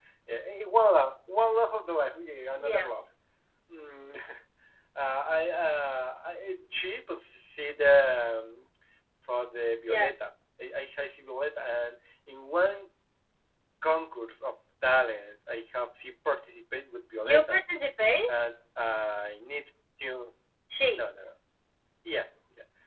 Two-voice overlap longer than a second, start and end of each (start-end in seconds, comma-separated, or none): none